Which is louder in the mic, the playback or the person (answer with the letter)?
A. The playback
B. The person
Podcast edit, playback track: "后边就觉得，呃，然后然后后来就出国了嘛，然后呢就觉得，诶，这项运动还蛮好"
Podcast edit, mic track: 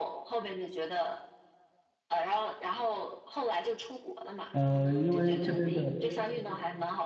B